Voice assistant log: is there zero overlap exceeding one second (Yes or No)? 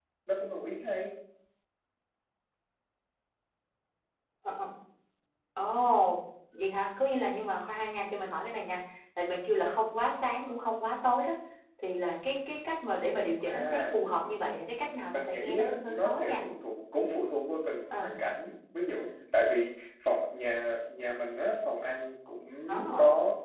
No